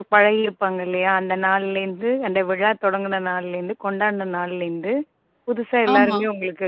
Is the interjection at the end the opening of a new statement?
No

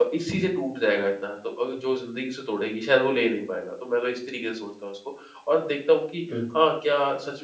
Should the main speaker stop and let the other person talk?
No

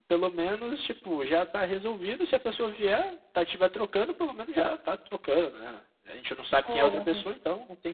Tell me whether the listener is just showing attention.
Yes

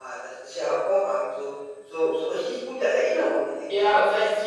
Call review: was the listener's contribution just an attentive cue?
No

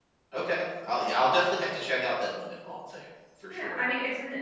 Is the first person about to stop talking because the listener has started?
Yes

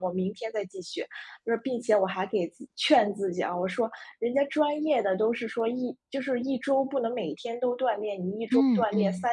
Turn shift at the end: No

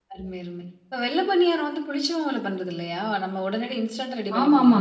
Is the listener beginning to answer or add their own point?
Yes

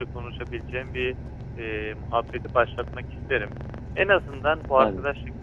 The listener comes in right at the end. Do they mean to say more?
No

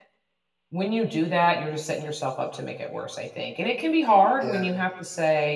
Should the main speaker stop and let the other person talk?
No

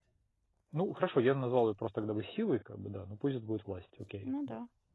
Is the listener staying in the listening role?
No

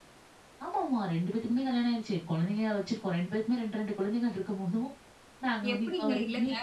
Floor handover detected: Yes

